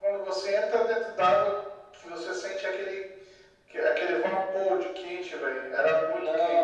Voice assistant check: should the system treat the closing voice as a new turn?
Yes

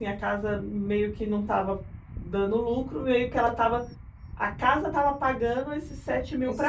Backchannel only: No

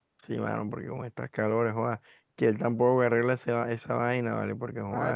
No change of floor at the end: No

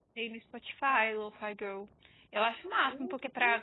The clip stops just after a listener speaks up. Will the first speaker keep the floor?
Yes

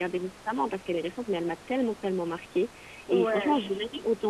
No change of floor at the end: Yes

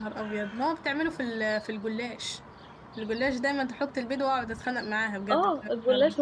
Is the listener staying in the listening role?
No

